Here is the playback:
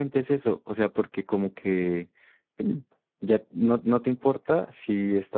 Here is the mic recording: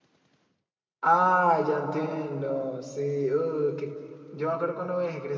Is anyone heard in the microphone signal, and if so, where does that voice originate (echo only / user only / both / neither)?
user only